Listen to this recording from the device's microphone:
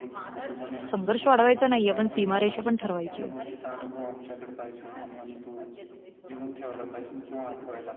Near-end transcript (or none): संघर्ष वाढवायचा नाहीये, पण सीमारेषा पण ठरवायची आहे.